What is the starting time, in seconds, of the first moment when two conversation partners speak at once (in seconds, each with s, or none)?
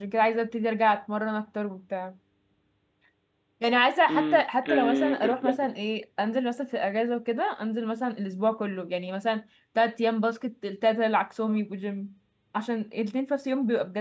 4.1 s